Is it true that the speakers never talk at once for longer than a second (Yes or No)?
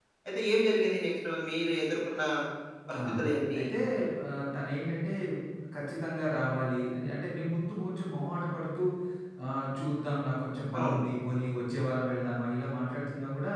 Yes